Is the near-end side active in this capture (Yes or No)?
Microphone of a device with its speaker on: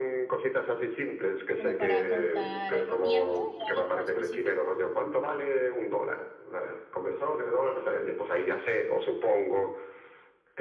Yes